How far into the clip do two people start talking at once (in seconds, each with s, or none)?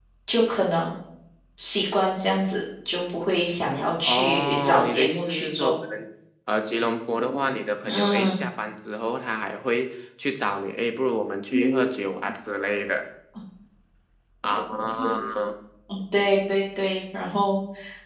4.0 s